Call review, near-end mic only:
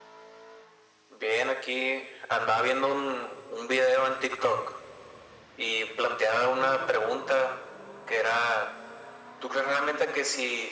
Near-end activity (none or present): none